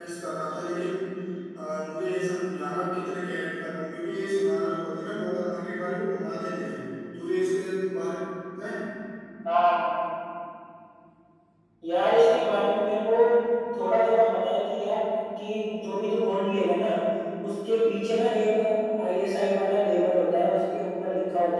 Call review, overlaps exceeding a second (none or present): none